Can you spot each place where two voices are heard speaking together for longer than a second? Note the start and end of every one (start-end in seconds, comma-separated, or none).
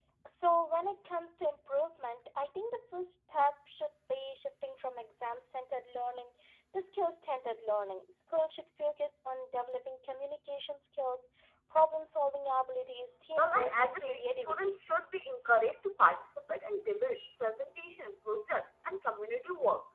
13.4-14.8